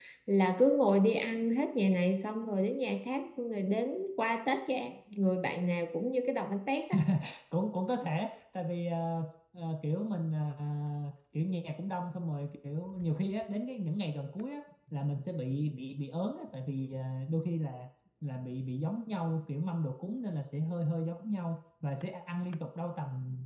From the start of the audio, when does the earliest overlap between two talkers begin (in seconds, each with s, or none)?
none